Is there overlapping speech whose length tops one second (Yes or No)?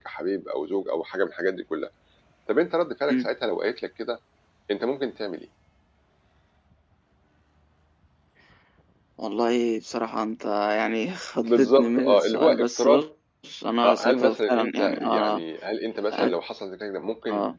Yes